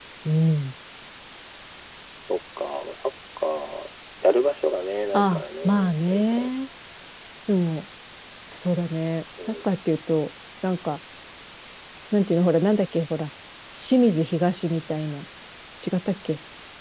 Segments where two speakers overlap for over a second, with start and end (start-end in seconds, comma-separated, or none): 5.1-6.5